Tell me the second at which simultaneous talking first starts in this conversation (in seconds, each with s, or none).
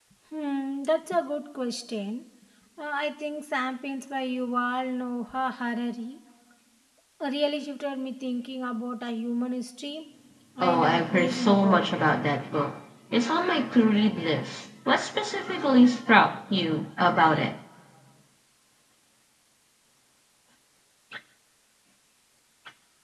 10.6 s